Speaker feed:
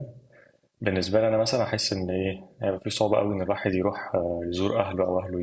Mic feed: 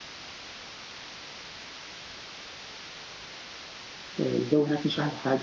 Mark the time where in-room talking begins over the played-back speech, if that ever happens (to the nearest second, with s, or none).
4 s